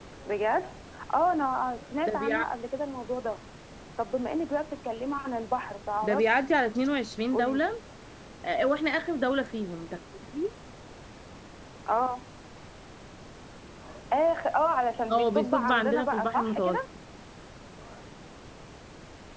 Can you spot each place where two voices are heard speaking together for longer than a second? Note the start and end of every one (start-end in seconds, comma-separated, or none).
15.1-16.8